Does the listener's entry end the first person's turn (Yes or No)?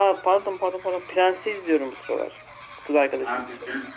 Yes